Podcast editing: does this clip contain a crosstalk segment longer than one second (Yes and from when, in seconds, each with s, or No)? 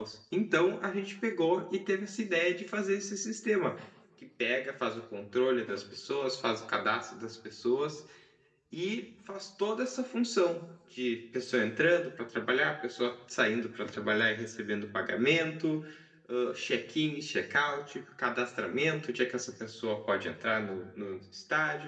No